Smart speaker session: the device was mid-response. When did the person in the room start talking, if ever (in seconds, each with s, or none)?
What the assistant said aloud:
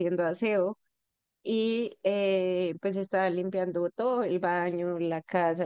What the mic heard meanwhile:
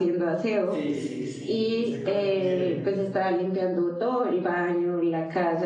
0.6 s